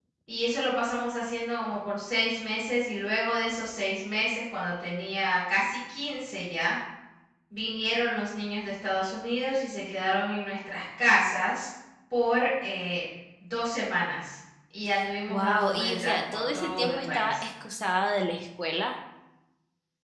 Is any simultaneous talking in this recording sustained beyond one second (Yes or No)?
Yes